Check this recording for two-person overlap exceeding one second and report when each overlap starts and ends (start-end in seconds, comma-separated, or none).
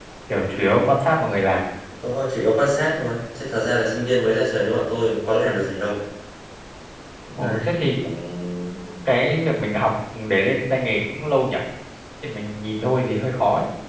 none